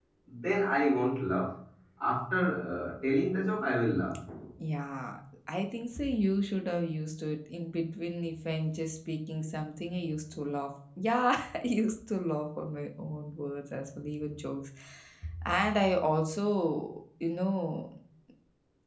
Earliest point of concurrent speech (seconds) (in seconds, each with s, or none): none